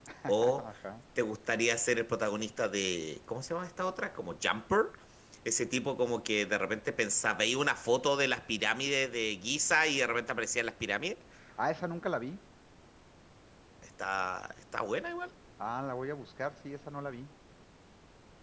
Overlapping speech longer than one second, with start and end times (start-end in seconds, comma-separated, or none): none